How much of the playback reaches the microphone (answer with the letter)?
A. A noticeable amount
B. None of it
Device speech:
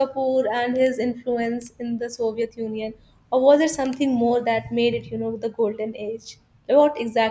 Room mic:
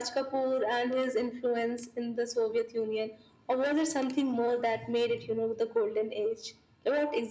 A